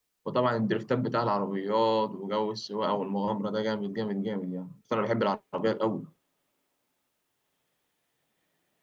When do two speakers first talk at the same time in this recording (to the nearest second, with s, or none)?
none